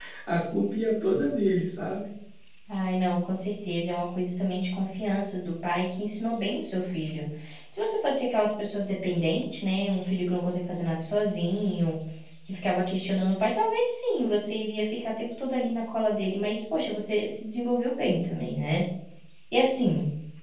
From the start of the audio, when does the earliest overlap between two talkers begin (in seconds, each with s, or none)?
none